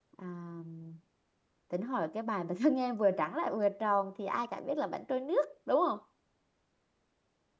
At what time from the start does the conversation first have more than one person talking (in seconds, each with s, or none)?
none